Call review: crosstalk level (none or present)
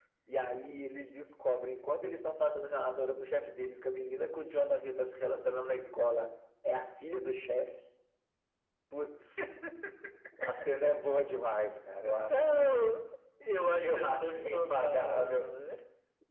present